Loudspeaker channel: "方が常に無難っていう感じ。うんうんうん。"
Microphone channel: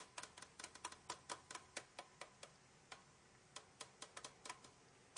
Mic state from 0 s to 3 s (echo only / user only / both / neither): neither